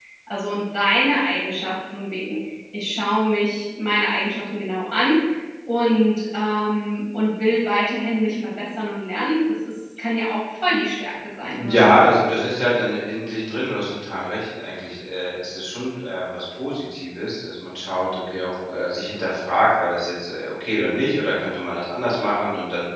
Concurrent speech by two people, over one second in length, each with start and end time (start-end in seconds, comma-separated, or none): none